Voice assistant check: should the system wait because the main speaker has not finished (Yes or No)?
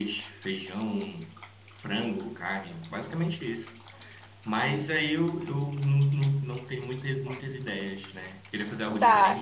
No